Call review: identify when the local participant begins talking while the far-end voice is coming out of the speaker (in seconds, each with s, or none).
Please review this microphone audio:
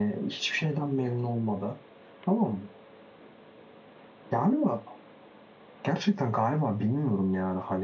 none